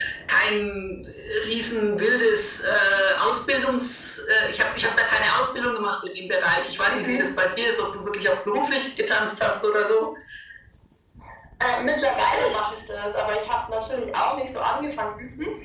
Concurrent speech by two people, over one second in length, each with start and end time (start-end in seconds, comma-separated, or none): none